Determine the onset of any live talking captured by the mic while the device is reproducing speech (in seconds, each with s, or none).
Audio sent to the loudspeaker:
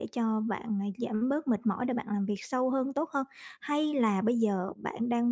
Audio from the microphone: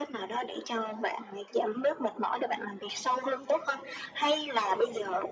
none